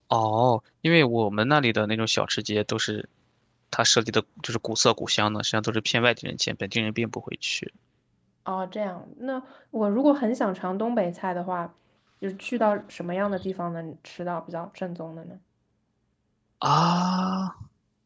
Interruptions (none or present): none